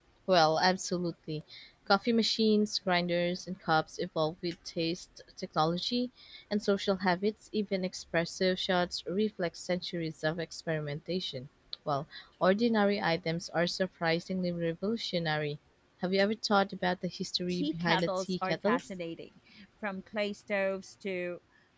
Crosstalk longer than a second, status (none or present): present